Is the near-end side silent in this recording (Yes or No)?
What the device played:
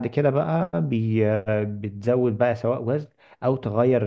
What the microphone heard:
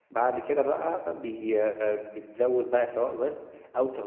Yes